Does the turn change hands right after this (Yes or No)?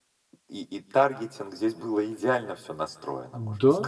Yes